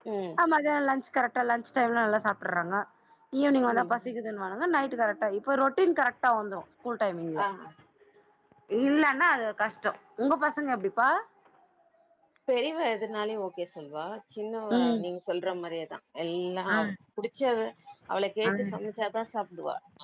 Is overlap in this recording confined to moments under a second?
Yes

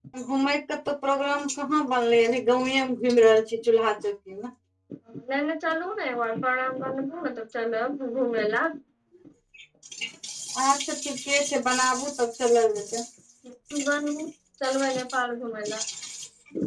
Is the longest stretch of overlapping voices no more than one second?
Yes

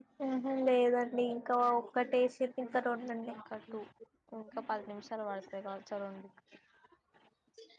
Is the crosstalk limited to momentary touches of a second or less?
Yes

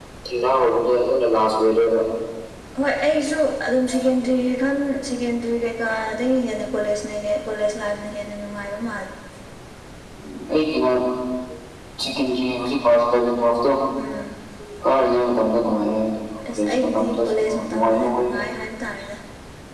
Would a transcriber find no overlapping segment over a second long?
No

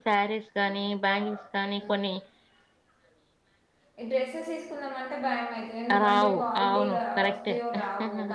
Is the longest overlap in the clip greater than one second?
Yes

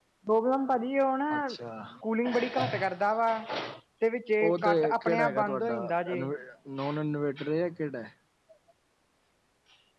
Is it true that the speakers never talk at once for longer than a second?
No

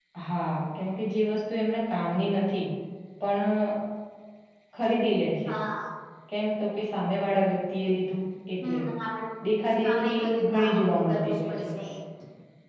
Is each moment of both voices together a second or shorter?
No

